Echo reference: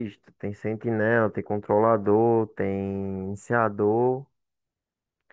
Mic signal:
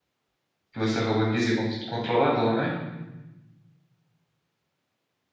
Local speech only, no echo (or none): Que você acabou de dizer, con- controlador, né?